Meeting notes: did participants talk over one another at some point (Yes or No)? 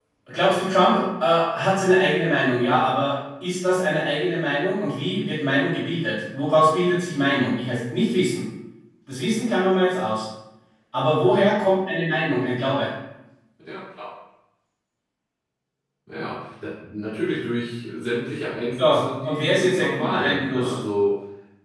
Yes